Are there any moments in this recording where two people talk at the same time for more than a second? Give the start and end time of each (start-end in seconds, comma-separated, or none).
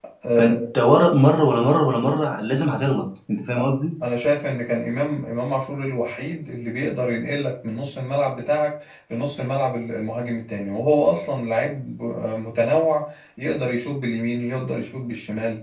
none